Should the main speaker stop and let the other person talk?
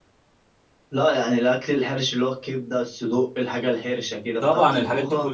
Yes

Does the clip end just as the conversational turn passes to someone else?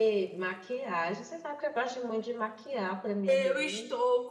Yes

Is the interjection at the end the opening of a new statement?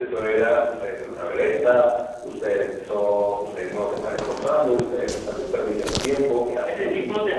Yes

